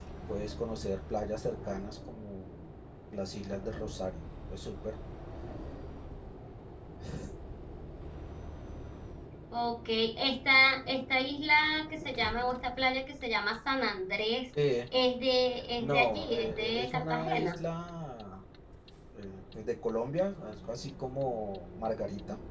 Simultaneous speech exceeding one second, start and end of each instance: 15.8-17.6

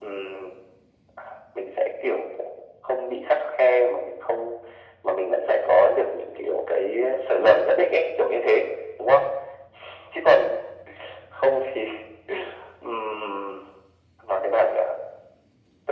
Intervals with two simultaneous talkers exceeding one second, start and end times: none

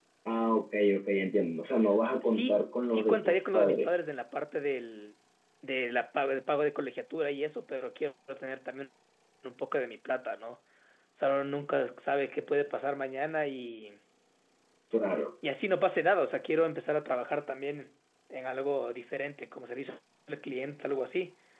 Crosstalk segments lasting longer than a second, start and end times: 2.2-3.9

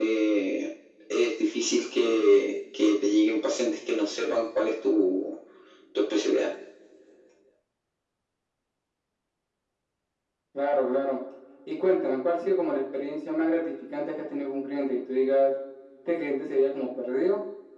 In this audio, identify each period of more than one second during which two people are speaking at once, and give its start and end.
none

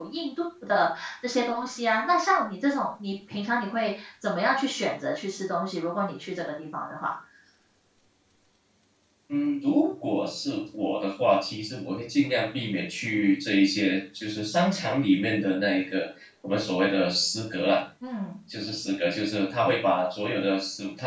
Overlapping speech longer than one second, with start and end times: none

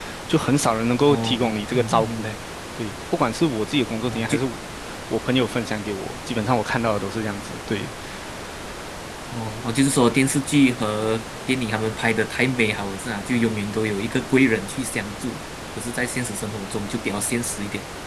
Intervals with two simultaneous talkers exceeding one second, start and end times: 1.1-2.3

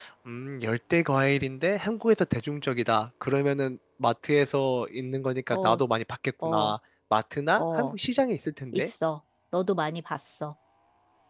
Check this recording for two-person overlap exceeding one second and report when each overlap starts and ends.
none

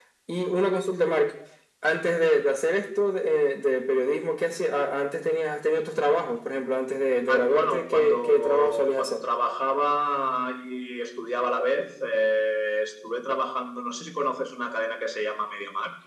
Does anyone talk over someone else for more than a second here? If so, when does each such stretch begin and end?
7.3-9.2

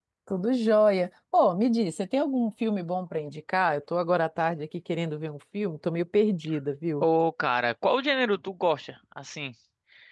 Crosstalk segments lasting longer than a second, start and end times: none

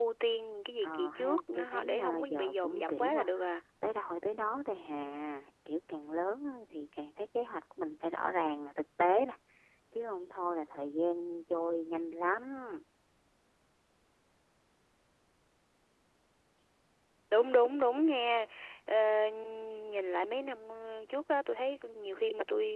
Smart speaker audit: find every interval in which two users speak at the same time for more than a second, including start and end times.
0.8-3.2

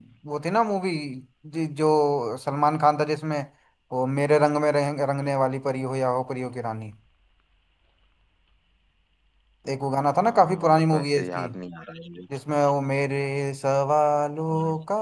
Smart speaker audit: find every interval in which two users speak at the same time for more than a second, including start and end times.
10.2-11.5

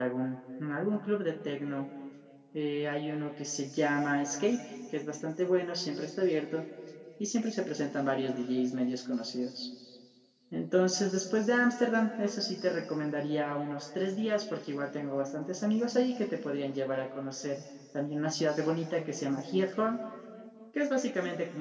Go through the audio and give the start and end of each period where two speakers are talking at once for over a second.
none

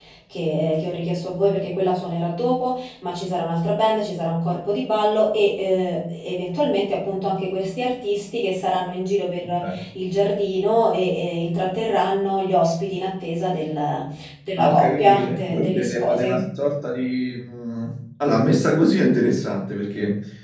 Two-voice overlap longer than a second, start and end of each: 14.6-16.4

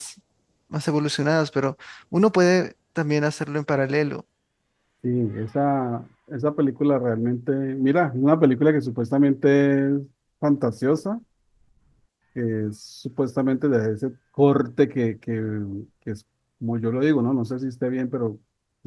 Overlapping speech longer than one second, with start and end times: none

